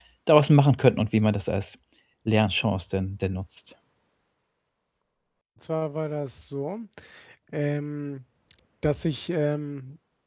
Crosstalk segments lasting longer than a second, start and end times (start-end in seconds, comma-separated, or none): none